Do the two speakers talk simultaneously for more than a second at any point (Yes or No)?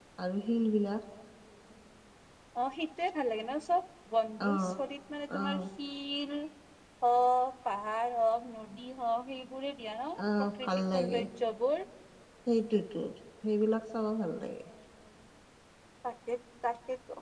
No